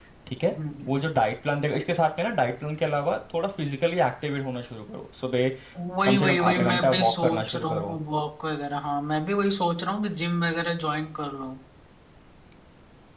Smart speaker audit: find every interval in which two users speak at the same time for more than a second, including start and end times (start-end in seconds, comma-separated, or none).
6.0-8.0